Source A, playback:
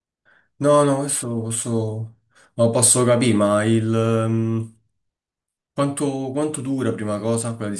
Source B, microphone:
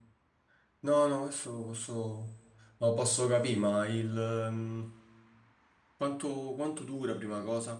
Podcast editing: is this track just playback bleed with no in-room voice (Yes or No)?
Yes